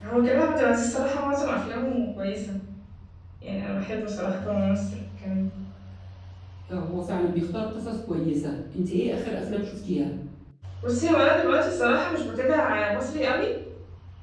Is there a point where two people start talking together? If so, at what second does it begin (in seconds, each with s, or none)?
none